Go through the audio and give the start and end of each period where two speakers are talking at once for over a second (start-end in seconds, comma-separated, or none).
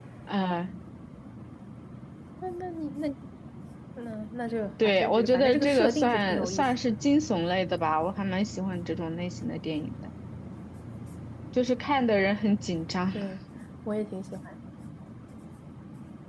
4.8-6.9